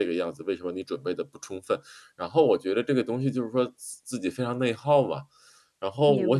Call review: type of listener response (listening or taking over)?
listening